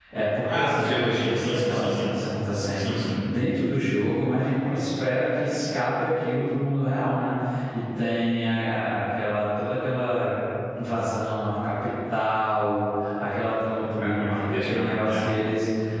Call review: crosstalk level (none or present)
present